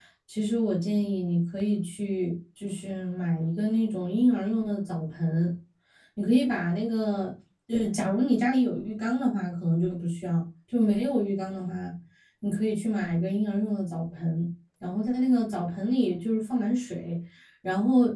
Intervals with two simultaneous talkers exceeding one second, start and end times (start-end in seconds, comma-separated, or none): none